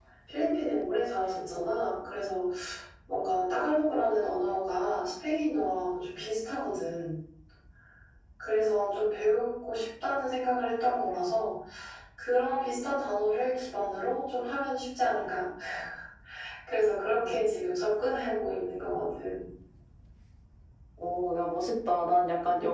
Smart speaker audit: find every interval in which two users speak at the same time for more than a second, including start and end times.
none

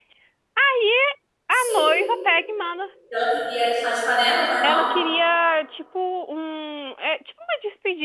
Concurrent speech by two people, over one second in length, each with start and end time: none

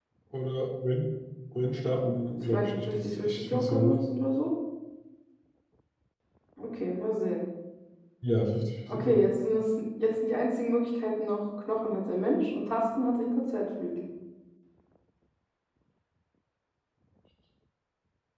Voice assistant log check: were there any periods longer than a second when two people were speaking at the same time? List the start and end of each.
2.5-4.0

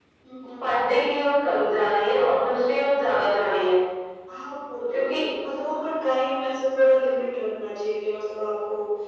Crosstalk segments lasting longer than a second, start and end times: none

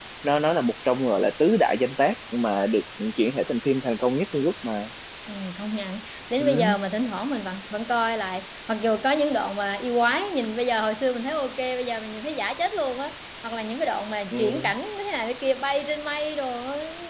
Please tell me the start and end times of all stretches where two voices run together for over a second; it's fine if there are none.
none

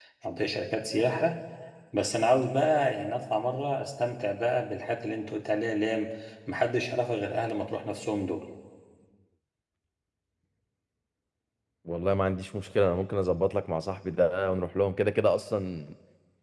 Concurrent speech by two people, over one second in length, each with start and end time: none

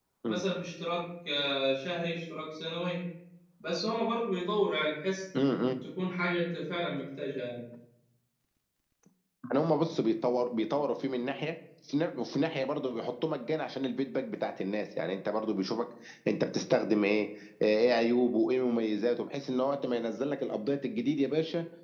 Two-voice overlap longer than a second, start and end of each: none

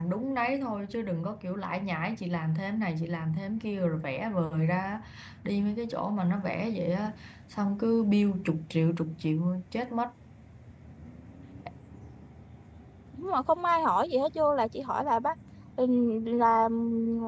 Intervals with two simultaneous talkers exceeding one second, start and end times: none

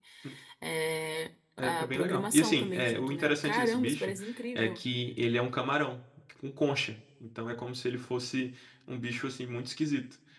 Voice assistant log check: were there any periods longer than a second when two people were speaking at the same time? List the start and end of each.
1.6-4.1

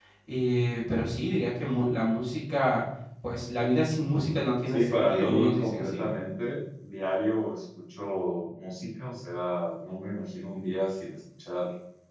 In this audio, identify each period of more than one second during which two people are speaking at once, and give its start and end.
4.7-6.0

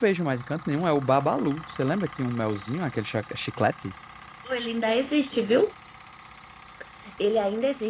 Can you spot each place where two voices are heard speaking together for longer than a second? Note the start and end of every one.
none

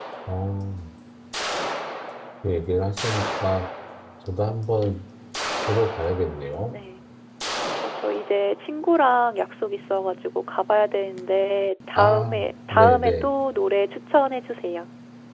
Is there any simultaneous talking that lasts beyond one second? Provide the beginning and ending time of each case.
12.0-13.3

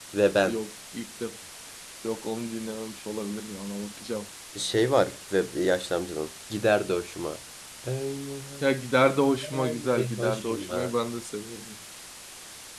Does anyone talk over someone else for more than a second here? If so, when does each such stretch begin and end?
9.3-10.9

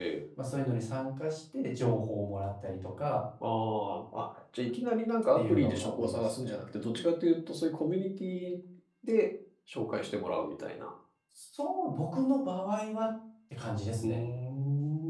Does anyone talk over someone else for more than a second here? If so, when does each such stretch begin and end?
5.3-6.6

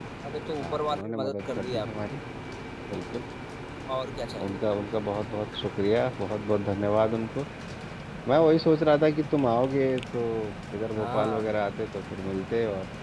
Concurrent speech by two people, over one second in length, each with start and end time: 0.6-2.1

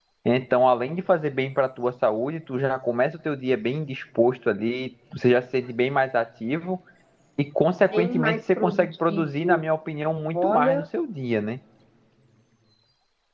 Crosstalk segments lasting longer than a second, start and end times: 7.9-9.6

